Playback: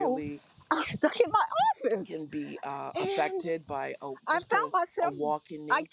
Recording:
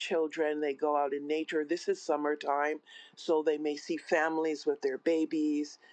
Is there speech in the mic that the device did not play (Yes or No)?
Yes